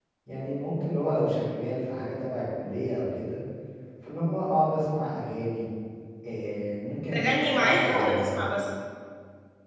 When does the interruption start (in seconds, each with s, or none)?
7.1 s